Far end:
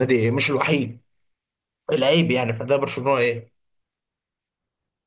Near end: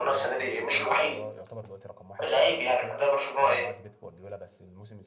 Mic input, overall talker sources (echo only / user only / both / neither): both